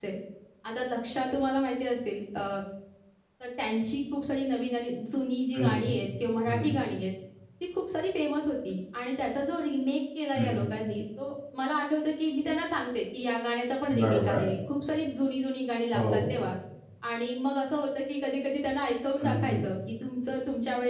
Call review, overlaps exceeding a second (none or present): none